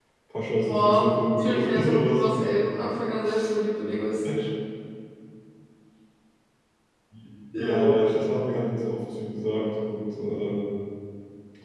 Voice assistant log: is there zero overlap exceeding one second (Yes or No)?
No